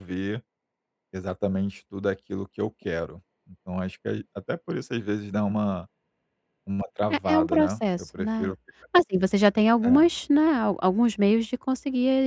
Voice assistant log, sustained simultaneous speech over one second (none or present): present